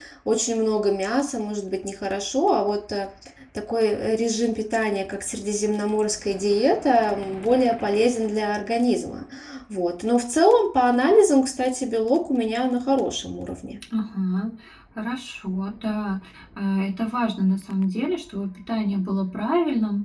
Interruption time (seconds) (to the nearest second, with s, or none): none